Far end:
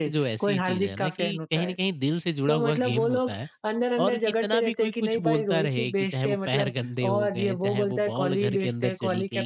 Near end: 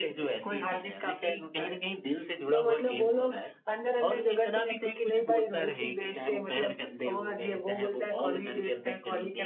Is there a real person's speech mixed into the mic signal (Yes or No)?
No